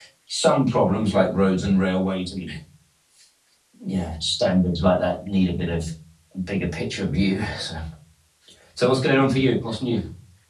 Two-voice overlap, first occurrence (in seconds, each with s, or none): none